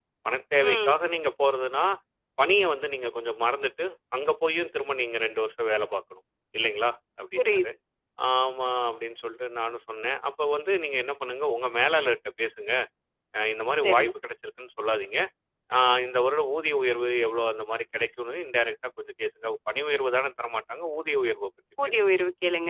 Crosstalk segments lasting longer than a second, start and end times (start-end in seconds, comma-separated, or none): none